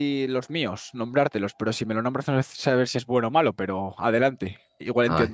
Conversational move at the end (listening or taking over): taking over